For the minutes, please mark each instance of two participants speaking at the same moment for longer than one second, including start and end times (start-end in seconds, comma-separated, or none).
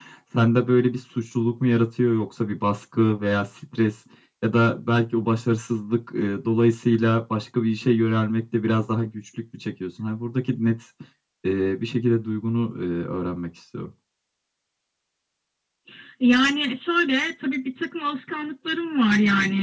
none